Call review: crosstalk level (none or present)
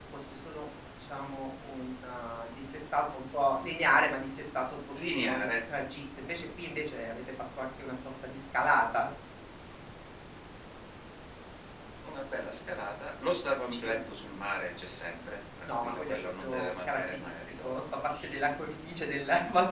present